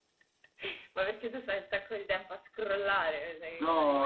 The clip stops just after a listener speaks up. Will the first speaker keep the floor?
No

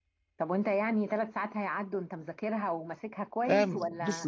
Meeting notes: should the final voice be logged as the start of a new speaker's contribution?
Yes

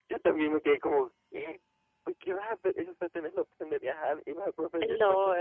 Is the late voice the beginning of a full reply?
Yes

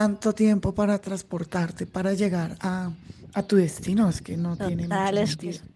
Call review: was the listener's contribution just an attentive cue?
No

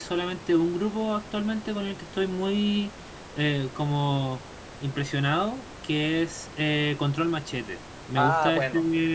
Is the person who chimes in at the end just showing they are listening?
Yes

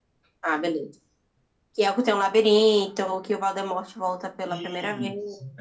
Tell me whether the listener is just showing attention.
No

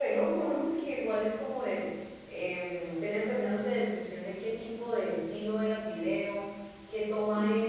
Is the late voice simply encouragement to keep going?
Yes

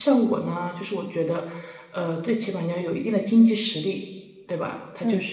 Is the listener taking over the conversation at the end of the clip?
No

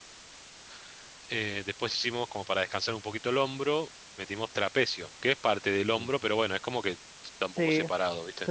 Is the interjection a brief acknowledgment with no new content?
No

